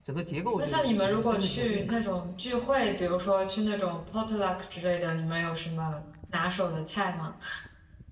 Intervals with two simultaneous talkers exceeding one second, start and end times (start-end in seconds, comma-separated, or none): 0.6-2.0